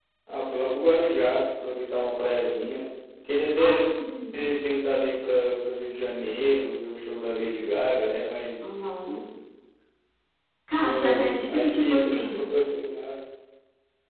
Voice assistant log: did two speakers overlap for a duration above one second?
Yes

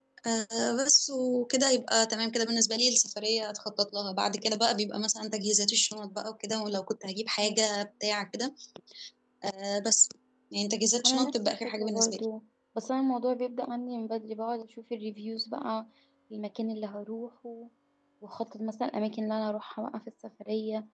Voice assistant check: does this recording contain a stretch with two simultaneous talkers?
Yes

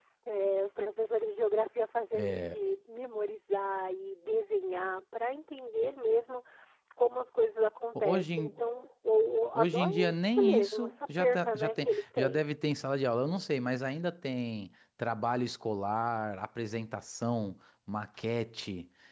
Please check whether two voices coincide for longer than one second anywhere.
Yes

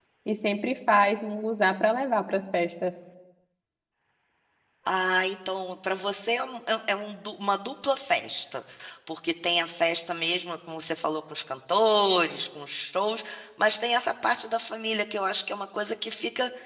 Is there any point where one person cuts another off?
No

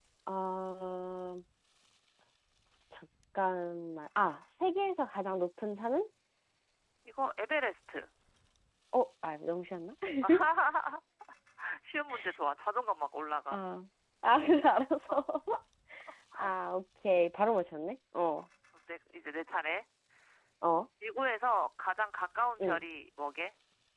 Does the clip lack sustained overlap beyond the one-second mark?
Yes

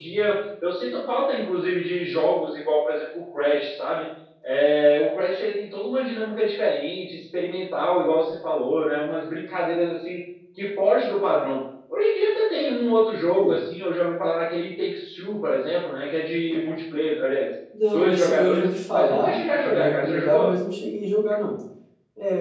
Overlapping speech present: Yes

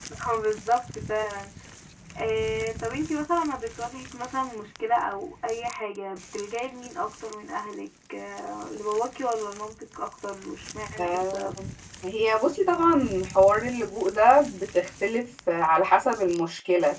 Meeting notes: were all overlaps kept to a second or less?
Yes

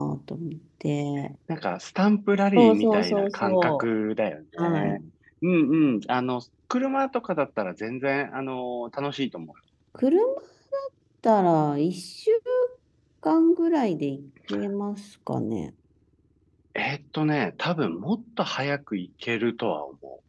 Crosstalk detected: Yes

